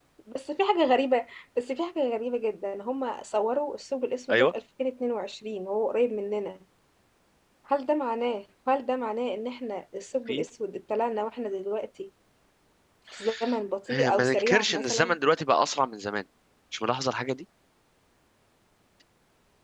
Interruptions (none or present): present